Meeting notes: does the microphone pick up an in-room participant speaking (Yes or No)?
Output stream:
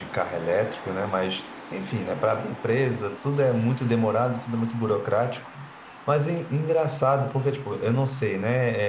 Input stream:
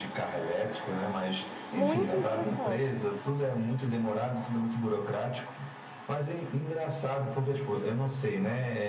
Yes